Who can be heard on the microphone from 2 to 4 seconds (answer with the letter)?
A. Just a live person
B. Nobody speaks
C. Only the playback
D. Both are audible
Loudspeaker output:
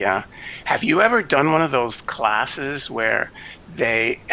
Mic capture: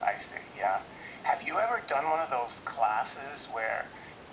C